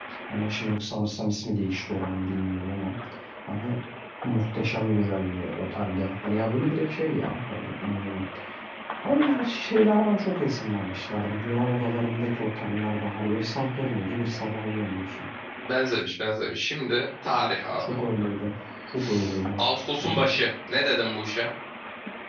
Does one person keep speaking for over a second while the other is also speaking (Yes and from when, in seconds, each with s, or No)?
No